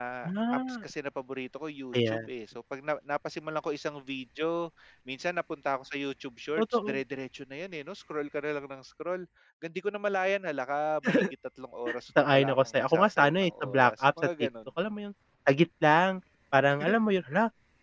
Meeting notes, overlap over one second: present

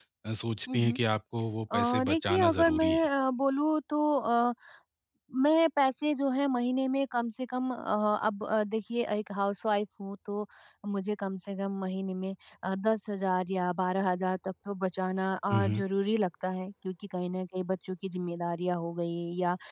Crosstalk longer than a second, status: present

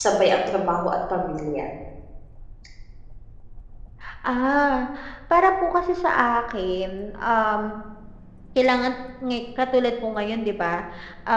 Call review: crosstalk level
none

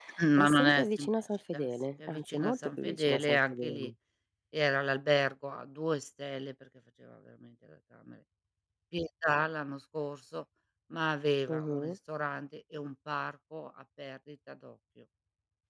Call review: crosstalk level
present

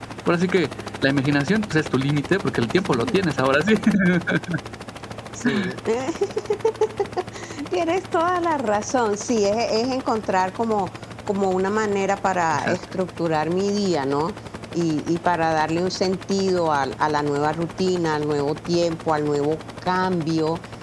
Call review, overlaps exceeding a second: none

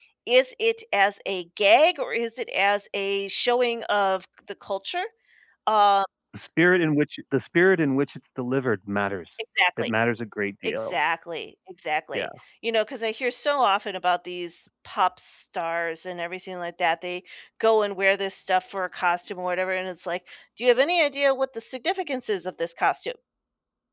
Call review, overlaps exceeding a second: none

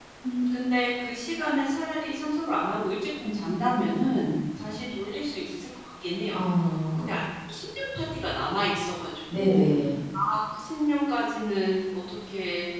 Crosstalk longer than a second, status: none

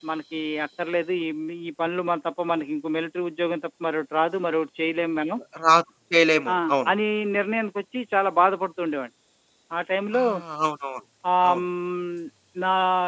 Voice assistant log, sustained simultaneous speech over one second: none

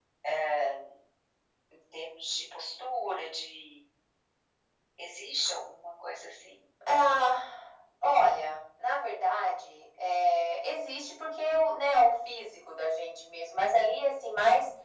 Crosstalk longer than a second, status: none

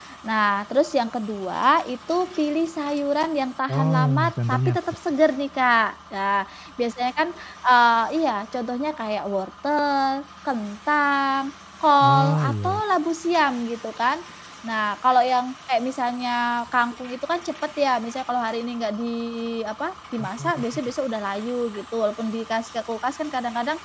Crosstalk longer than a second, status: present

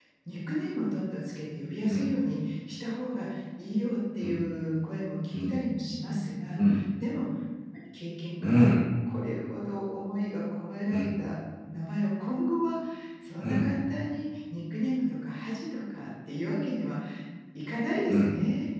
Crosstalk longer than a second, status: none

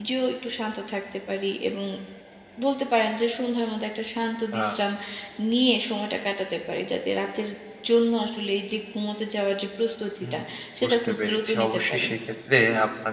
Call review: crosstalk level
present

